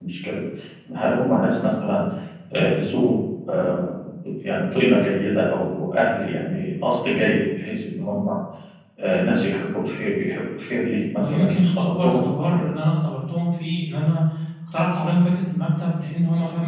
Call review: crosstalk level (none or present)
present